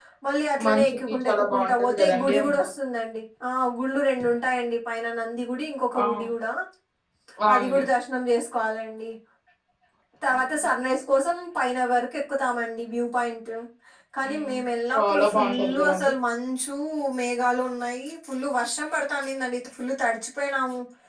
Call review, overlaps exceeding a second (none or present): present